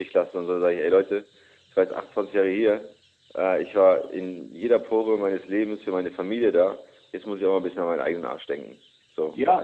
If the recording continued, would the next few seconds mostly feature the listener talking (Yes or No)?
Yes